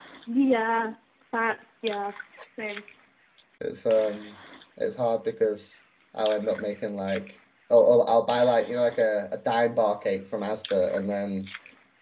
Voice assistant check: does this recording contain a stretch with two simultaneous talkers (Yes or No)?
No